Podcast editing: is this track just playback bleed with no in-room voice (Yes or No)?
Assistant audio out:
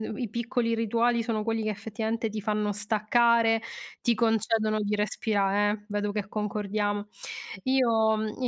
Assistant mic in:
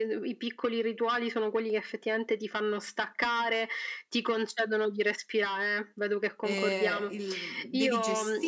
No